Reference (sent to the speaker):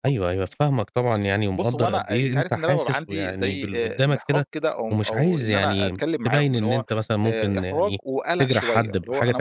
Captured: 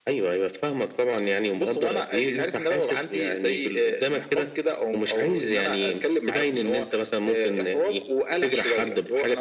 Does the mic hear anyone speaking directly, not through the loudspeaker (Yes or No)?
No